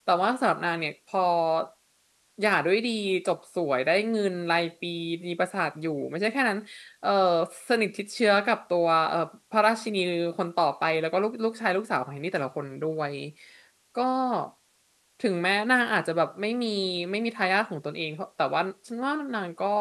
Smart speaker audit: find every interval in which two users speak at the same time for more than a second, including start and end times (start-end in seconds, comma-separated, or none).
none